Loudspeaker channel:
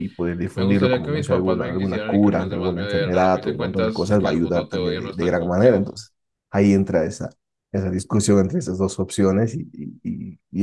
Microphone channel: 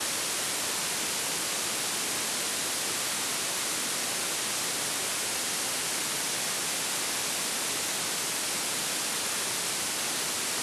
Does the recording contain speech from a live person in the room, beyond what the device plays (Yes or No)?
No